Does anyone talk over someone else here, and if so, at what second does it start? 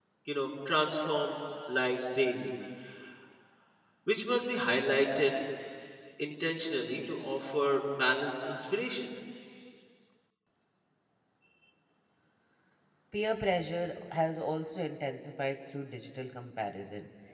none

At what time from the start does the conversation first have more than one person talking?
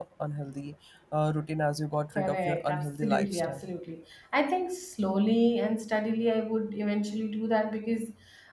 2.1 s

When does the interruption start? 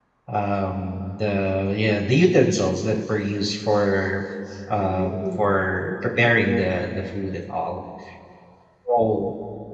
4.8 s

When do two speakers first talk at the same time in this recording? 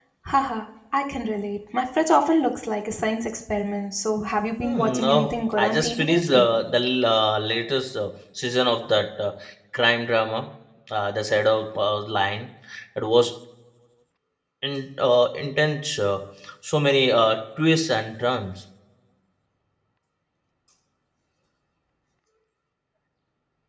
4.6 s

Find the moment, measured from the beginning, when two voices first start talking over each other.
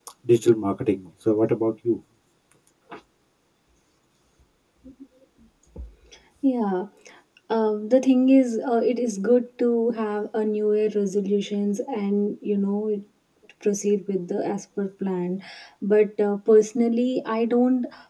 none

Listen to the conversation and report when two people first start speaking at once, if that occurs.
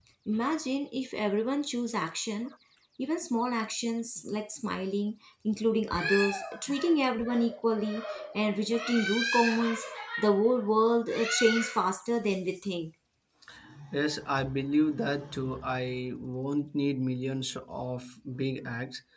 none

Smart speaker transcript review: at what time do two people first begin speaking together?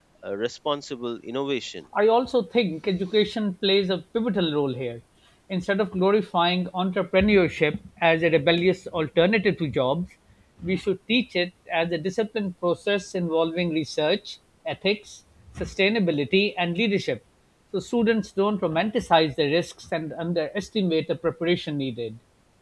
none

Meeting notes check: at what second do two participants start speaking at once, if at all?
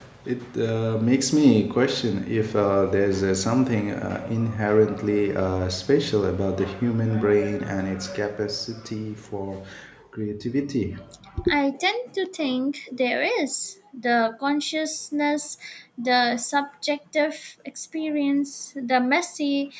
none

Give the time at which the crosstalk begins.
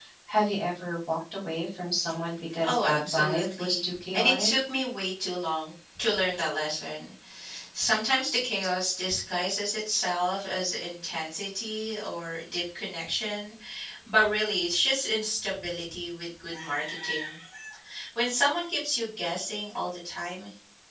2.6 s

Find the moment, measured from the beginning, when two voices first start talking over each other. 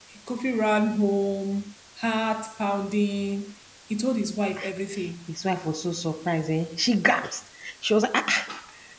none

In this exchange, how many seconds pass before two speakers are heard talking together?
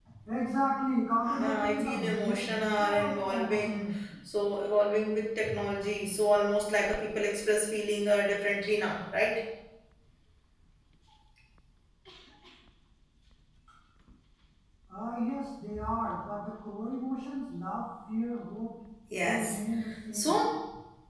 1.4 s

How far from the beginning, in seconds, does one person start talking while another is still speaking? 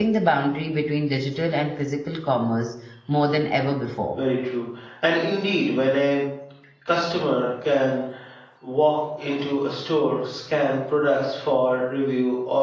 none

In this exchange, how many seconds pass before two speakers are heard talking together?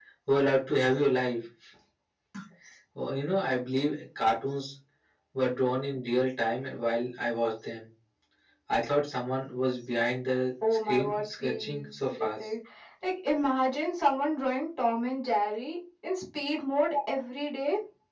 10.9 s

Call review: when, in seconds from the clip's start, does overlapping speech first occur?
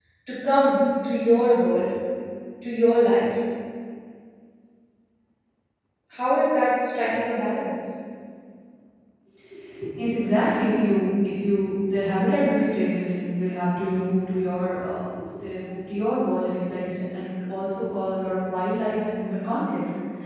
none

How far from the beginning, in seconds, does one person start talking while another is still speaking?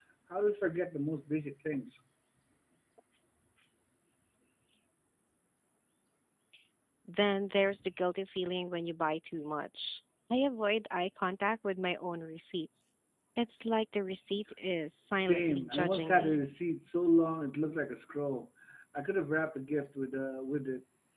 15.2 s

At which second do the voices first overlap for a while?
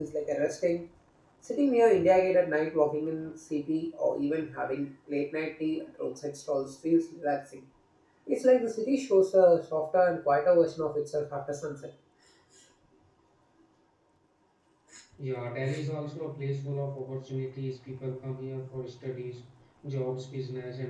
none

